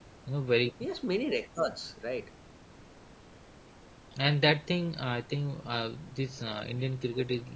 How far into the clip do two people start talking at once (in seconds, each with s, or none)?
none